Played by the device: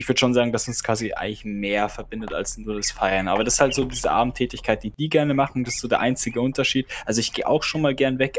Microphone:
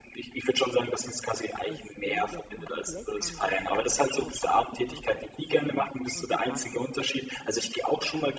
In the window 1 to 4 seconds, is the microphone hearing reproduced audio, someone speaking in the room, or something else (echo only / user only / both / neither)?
both